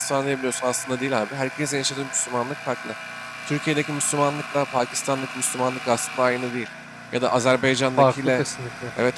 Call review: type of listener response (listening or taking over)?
listening